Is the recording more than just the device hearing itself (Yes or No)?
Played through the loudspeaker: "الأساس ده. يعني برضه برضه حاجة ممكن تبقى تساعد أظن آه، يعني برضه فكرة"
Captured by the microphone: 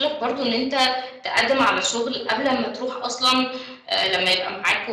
Yes